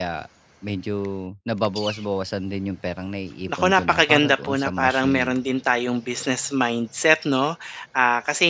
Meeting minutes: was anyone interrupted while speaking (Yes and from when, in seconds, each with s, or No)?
Yes, from 3.5 s